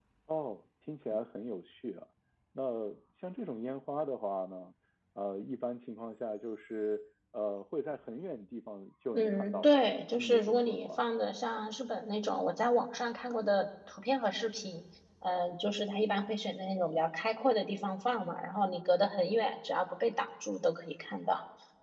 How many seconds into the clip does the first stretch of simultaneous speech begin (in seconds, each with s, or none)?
9.1 s